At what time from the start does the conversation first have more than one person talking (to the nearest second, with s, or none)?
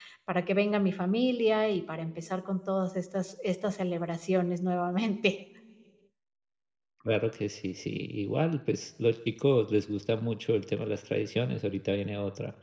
none